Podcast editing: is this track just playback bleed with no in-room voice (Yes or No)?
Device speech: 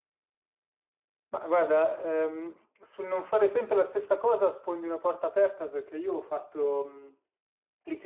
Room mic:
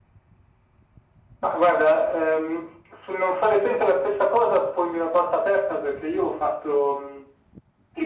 Yes